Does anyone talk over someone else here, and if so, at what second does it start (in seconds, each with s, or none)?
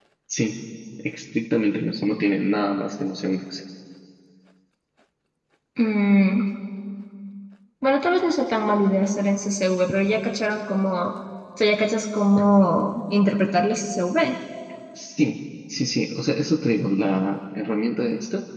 none